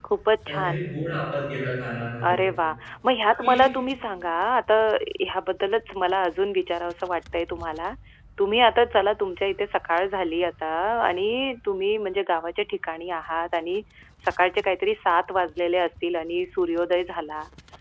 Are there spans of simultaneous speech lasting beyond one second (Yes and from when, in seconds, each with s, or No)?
No